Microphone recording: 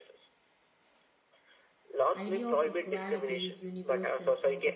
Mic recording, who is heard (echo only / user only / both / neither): both